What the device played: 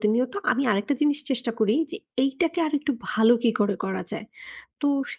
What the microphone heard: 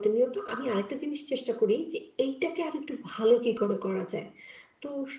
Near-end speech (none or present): none